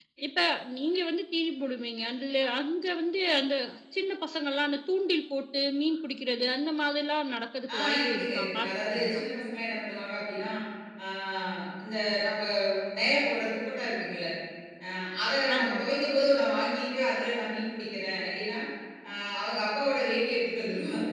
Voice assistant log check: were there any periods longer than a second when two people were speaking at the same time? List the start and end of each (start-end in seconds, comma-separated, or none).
7.8-9.2